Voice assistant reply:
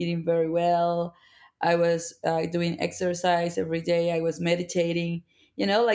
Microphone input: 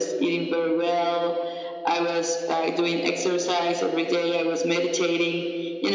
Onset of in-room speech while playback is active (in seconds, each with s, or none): none